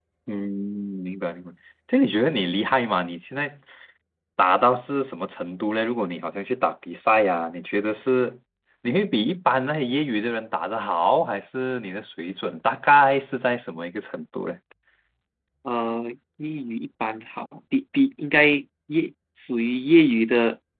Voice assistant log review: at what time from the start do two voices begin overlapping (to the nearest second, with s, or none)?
none